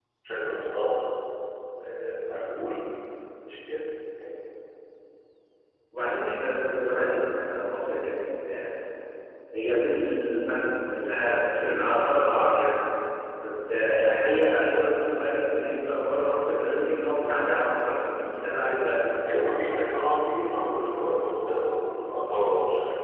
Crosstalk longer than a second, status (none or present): none